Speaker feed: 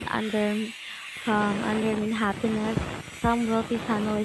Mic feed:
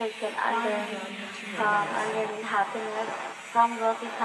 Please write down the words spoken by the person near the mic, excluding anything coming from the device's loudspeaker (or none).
far beyond material means.